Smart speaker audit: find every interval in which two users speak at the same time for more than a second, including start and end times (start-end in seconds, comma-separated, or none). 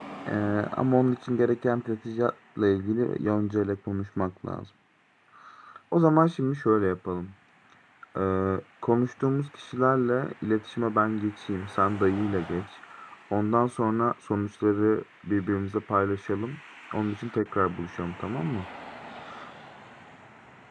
none